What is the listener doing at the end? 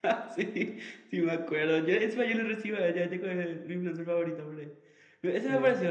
listening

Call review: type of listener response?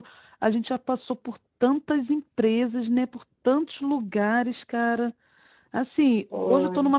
listening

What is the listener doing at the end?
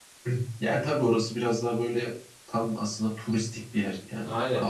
taking over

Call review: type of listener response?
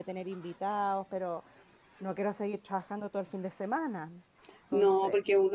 taking over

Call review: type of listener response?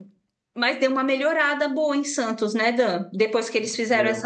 listening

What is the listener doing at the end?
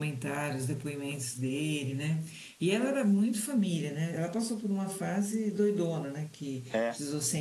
listening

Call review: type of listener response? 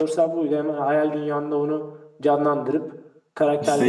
taking over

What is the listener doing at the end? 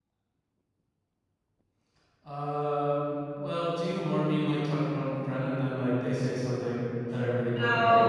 taking over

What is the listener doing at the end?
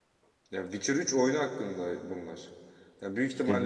listening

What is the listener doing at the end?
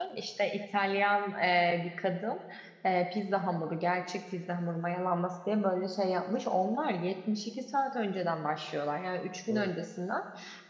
listening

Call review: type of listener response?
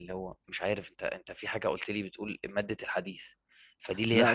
listening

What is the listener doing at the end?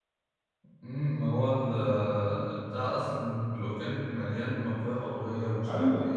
taking over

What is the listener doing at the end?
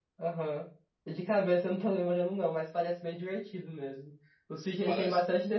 listening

